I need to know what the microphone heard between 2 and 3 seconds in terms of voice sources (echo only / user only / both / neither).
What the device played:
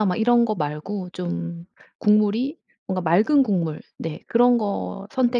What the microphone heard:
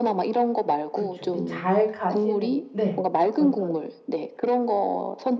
both